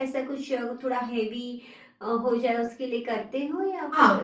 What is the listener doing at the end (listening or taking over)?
taking over